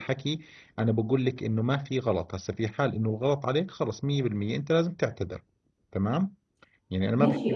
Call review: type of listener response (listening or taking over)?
taking over